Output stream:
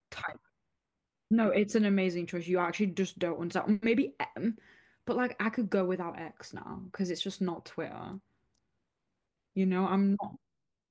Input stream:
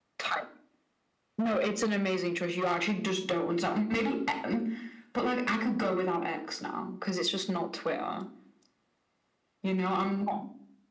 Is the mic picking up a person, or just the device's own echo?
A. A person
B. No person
B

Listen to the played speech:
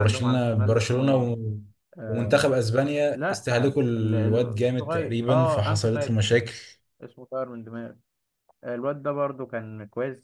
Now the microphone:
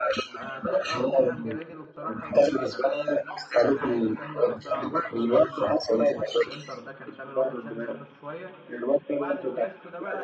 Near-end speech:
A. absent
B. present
B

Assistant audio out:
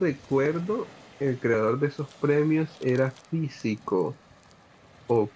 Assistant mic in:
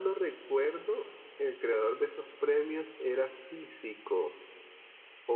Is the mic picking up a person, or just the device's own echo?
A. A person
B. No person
B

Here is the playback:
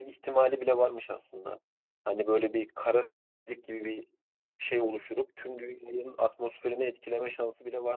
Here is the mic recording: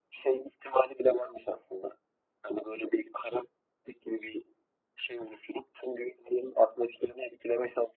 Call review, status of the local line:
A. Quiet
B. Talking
A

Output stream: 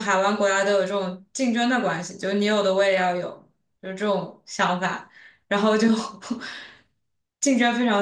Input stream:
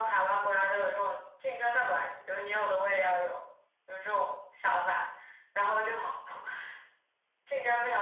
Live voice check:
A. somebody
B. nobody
B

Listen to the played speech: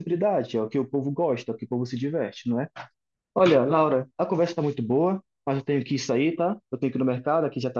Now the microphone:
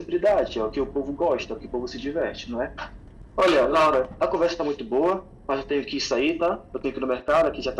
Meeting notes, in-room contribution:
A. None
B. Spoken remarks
A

